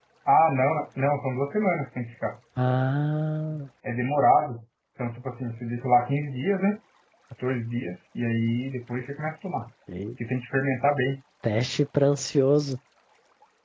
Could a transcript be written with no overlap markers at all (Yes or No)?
Yes